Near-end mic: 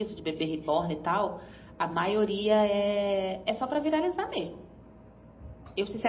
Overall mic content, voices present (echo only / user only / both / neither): user only